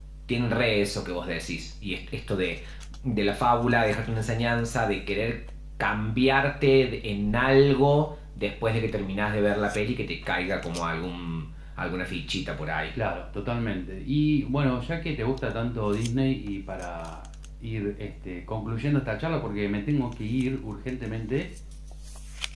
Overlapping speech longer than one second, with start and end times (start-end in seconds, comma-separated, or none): none